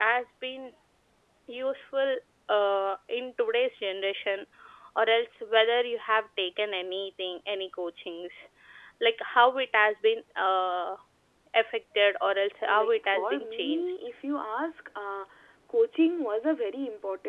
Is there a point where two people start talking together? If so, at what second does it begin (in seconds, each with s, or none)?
12.7 s